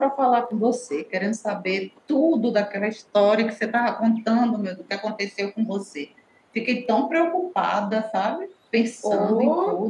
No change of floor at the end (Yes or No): No